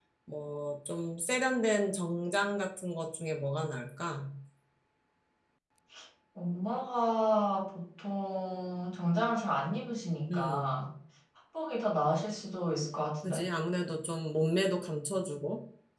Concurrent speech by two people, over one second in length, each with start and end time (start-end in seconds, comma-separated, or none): none